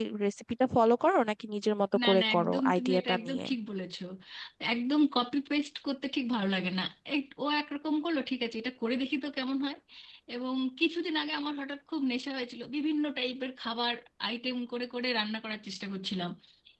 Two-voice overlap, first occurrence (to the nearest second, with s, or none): 2 s